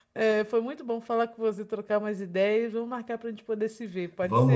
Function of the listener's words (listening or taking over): taking over